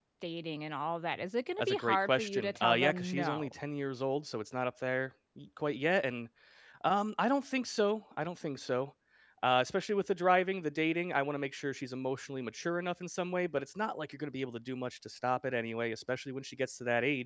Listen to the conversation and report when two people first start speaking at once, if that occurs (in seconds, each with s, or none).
1.6 s